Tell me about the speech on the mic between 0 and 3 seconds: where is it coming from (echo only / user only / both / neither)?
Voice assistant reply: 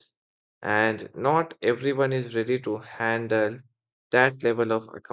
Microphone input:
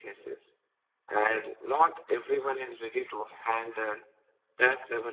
echo only